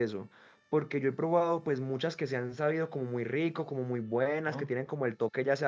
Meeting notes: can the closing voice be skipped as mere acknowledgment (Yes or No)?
Yes